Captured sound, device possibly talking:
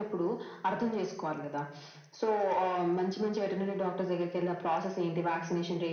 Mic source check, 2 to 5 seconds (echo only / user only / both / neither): echo only